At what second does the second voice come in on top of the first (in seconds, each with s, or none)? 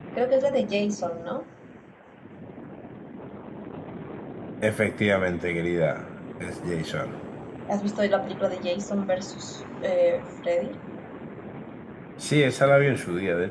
none